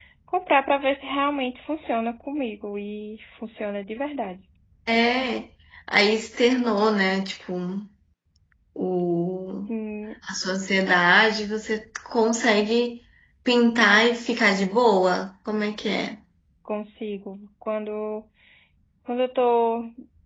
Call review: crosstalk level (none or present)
none